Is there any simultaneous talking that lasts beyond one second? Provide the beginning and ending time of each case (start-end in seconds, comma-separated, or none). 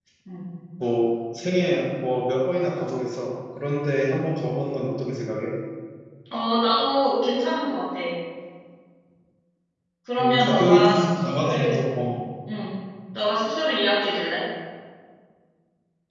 10.2-11.8